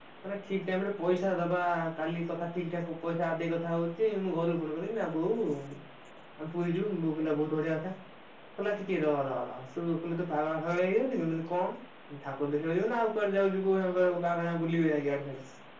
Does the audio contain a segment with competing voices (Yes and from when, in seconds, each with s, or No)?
No